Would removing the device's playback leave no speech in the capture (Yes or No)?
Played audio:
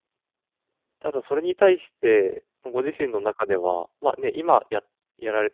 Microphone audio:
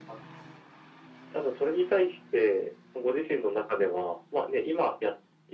Yes